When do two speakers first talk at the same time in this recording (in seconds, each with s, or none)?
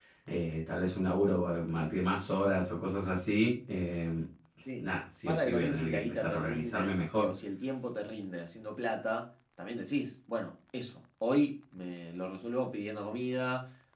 5.3 s